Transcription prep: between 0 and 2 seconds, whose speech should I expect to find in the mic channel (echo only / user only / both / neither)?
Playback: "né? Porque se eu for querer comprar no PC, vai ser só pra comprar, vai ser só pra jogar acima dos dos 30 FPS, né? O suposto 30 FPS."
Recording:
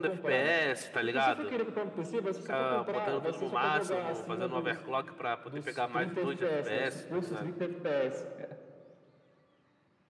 both